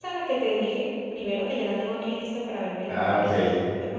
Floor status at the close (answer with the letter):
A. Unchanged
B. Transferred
A